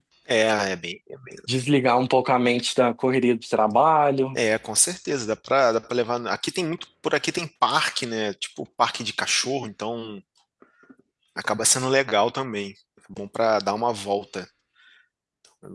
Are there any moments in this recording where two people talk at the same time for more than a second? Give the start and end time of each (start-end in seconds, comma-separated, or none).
none